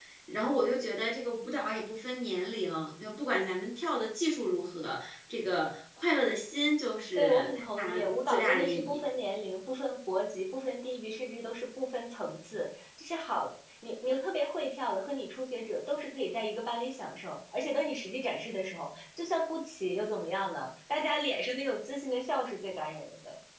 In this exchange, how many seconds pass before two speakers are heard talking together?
7.2 s

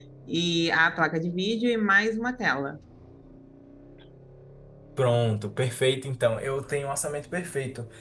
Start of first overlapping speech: none

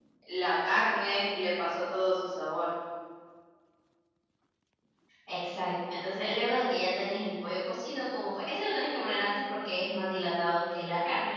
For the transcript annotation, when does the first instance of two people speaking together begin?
none

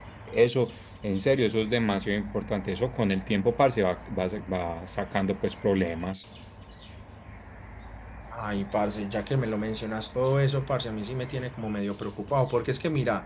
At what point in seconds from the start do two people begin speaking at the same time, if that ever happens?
none

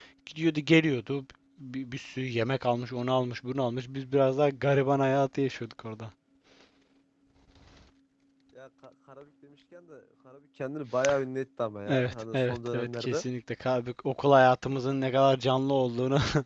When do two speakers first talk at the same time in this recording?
11.9 s

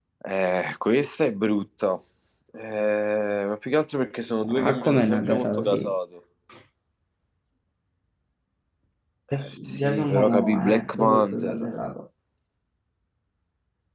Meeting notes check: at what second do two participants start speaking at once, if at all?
4.4 s

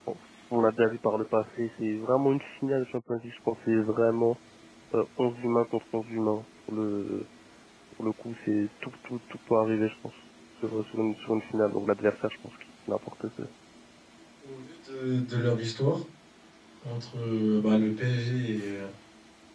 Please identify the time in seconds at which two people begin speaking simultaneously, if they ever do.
none

